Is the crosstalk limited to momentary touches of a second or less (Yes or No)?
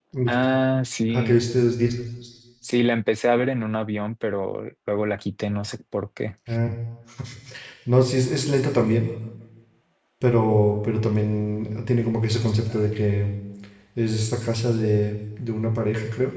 Yes